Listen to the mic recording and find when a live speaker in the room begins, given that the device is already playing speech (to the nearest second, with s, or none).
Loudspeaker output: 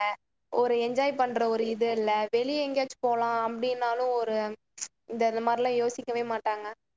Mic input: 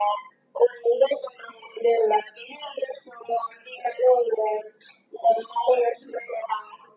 none